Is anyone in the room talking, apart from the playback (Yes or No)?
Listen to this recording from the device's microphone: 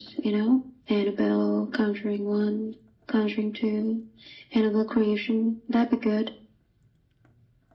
No